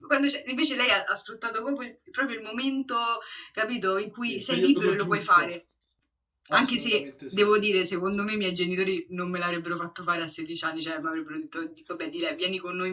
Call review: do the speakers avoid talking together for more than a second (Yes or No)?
No